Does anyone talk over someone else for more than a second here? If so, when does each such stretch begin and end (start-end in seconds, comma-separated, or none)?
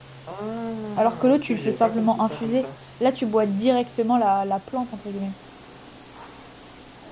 1.0-2.7